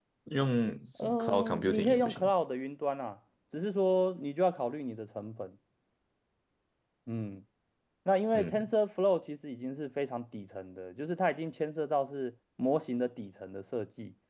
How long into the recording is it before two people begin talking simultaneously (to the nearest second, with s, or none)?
1 s